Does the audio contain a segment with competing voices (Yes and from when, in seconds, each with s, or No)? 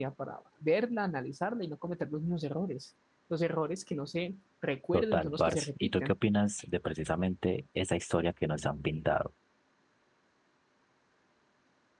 Yes, from 4.9 s